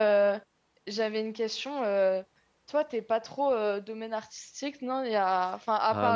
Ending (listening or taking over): taking over